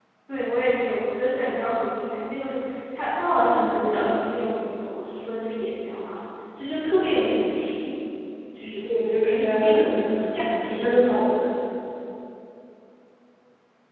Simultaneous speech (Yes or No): Yes